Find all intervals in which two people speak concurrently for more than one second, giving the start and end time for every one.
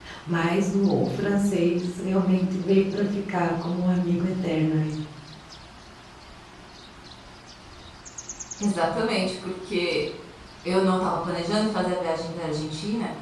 none

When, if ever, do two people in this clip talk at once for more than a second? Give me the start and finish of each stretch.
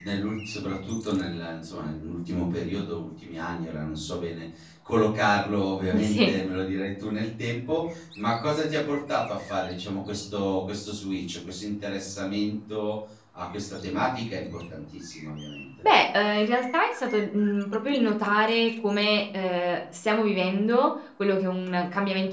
none

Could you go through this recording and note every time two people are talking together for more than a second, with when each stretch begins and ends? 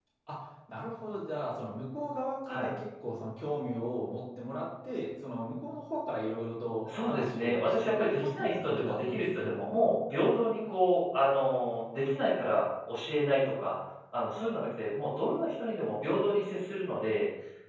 7.0-9.5

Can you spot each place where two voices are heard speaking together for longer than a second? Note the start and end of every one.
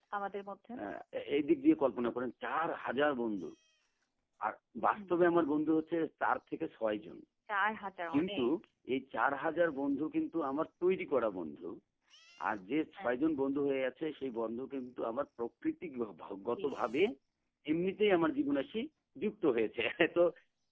none

